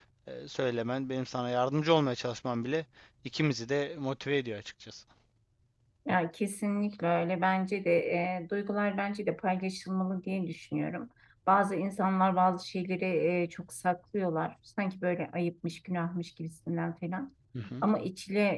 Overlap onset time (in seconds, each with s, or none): none